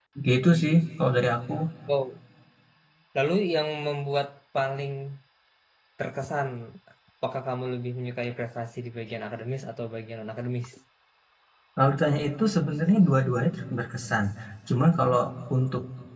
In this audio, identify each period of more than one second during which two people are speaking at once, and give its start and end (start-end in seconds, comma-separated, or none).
none